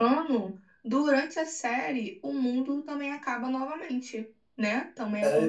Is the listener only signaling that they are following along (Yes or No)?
No